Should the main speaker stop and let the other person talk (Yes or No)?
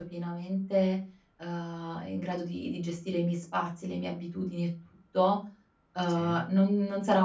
No